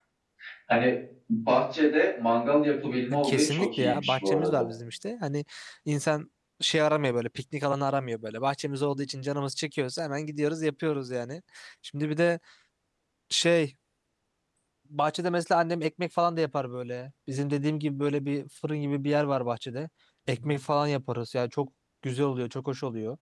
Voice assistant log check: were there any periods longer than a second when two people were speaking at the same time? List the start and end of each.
3.2-4.6

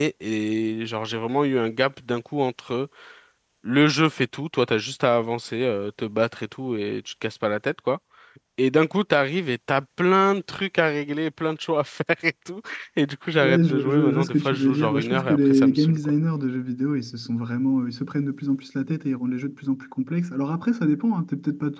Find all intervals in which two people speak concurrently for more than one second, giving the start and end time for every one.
13.4-16.1

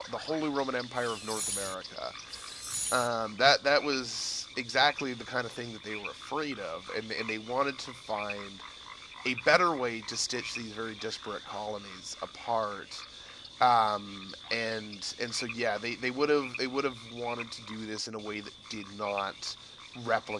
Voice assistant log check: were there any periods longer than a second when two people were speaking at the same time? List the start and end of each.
none

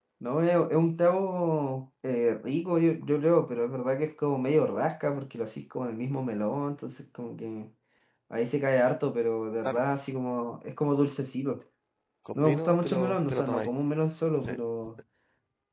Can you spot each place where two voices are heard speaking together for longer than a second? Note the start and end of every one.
12.3-13.7

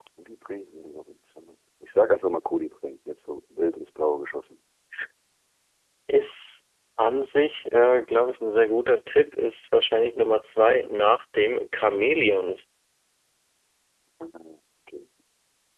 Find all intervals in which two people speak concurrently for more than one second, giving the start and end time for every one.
none

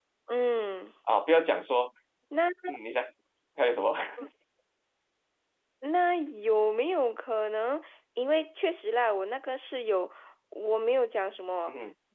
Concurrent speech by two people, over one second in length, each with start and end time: none

